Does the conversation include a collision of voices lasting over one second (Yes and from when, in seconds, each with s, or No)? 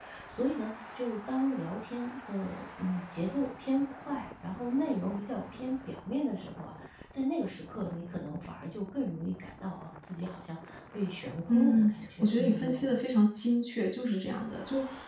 Yes, from 11.5 s